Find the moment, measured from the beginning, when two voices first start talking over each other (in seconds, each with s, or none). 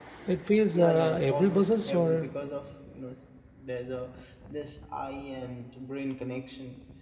0.7 s